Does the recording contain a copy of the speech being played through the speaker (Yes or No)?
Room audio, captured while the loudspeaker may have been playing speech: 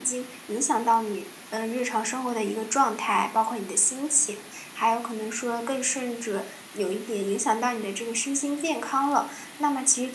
No